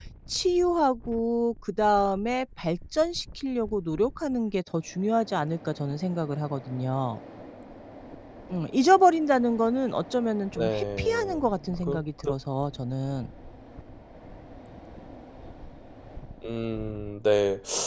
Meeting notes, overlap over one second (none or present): present